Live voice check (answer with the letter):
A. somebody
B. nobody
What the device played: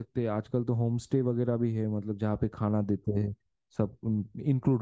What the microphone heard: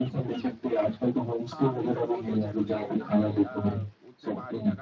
A